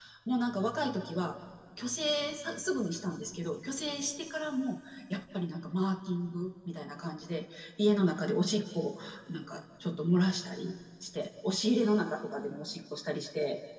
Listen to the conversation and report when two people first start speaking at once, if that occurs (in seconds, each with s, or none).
none